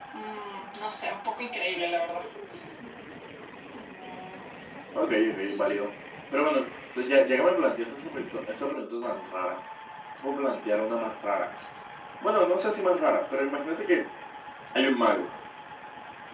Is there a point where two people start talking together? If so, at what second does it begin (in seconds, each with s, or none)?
none